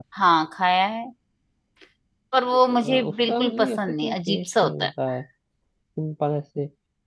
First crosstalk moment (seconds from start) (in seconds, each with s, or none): 2.8 s